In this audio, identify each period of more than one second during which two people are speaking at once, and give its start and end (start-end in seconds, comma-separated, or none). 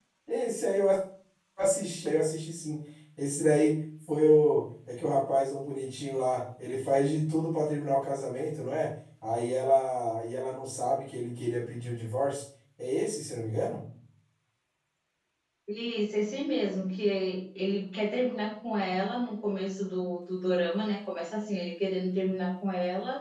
none